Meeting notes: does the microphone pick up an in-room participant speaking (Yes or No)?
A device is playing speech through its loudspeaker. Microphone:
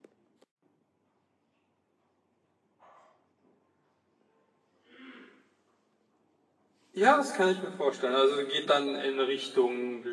Yes